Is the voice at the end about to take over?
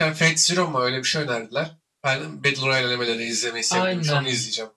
Yes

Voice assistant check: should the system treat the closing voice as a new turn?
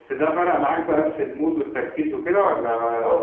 Yes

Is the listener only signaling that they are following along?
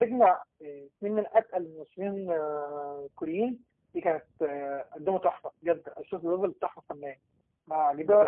No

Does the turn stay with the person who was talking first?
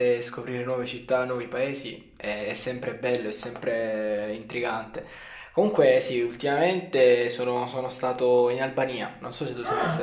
No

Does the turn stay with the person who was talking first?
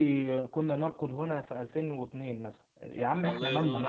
No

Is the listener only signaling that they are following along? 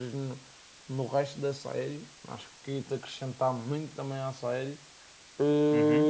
No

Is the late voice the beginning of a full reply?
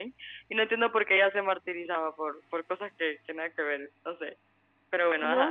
Yes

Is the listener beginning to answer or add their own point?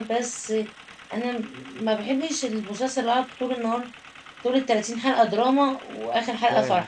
Yes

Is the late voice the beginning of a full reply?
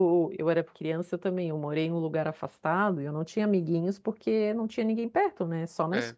No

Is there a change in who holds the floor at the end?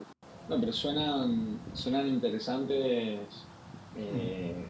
No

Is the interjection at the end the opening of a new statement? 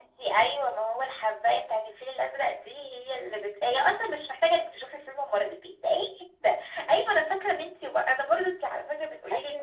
No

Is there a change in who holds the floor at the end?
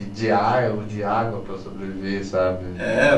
Yes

